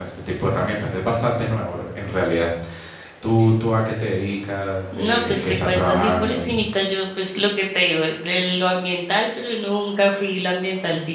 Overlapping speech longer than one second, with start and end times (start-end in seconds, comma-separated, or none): 4.9-6.4